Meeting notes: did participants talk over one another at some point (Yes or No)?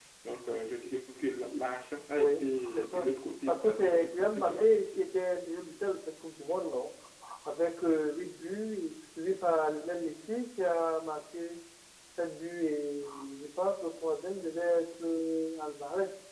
Yes